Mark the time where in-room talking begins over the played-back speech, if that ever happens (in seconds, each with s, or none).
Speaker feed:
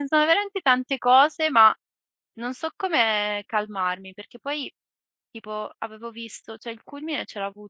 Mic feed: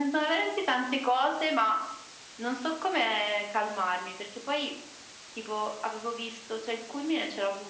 none